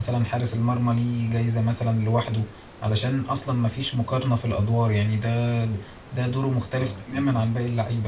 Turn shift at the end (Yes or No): No